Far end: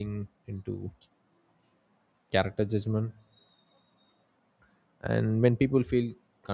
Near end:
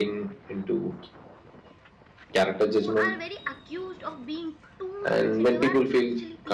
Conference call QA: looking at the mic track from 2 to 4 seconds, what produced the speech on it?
both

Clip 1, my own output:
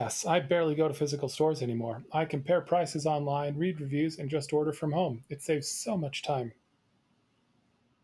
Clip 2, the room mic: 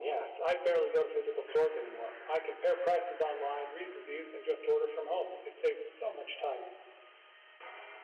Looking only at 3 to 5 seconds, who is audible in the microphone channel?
echo only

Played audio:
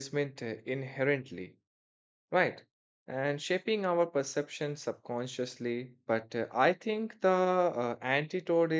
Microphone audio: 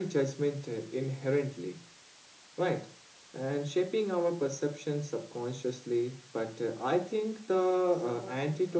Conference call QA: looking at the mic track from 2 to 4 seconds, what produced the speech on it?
echo only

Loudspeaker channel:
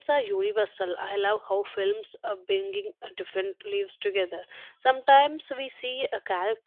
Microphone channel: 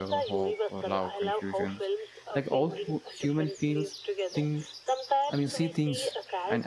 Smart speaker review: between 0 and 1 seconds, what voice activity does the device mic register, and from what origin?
both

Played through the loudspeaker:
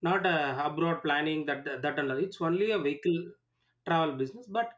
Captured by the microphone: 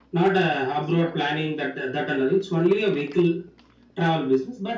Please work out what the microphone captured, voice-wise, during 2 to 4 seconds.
echo only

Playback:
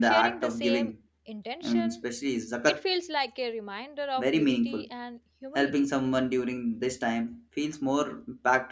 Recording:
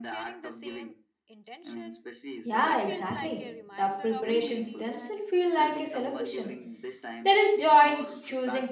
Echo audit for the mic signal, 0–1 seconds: echo only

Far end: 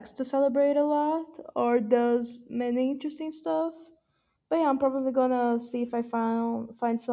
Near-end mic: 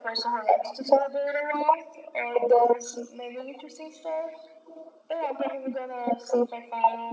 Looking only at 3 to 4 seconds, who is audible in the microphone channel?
echo only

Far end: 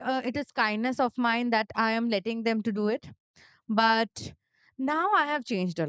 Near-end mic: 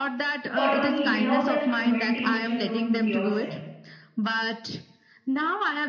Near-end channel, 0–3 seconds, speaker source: both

